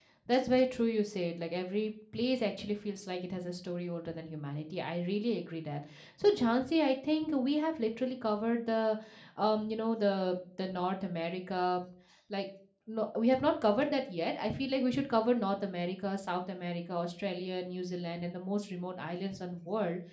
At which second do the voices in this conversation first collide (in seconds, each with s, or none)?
none